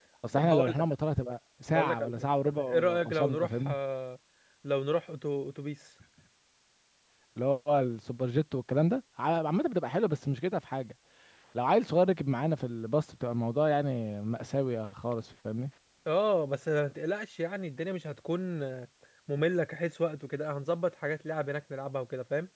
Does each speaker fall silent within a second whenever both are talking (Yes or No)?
No